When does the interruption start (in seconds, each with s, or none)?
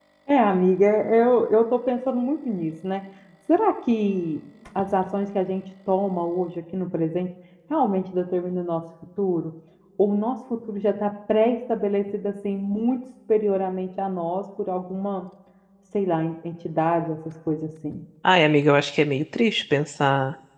none